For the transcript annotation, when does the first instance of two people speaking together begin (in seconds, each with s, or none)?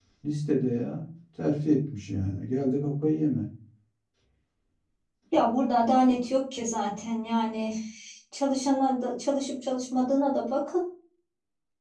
none